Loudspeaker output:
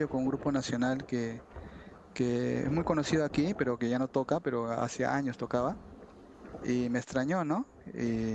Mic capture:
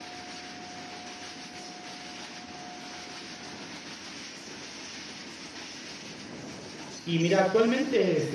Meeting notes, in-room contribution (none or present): present